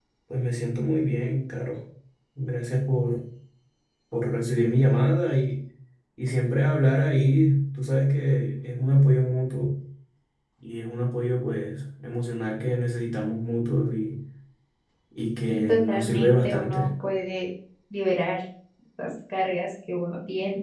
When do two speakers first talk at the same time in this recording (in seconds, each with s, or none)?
15.5 s